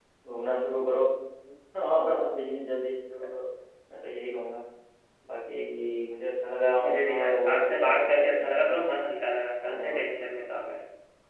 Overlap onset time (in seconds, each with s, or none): 6.8 s